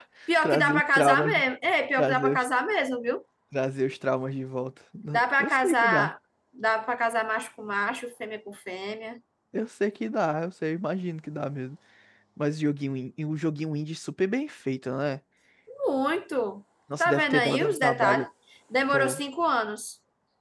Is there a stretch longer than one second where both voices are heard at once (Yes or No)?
Yes